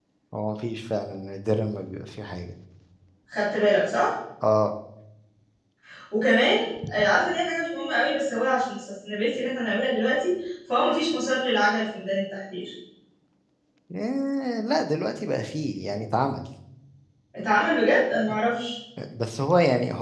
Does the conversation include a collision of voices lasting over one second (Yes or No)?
No